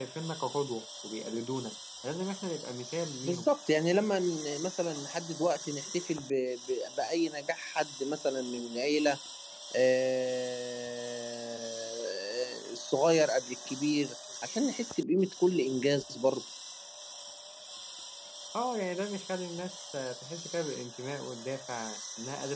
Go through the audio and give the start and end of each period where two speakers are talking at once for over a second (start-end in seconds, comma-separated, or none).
none